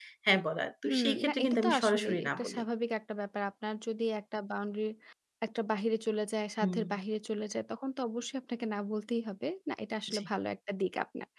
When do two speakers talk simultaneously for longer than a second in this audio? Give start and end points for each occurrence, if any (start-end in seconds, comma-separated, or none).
0.8-2.6